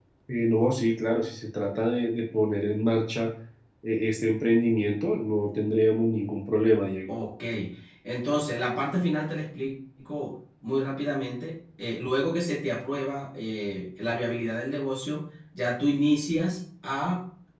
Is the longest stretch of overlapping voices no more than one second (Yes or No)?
Yes